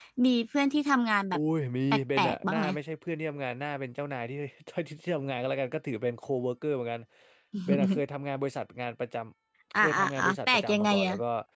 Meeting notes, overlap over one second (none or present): present